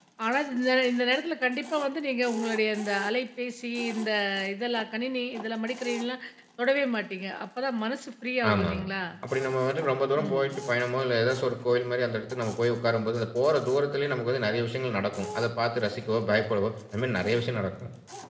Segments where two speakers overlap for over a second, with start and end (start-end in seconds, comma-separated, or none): none